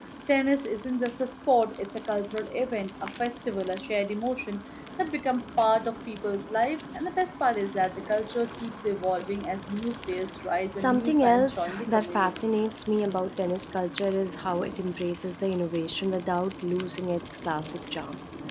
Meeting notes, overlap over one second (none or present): present